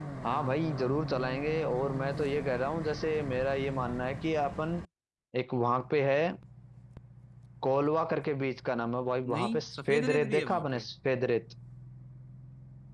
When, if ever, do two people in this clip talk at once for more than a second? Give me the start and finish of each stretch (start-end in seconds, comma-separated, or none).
9.3-10.8